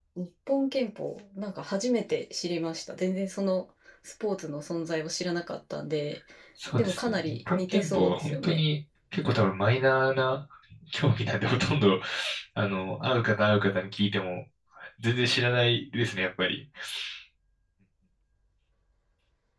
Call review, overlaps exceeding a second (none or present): present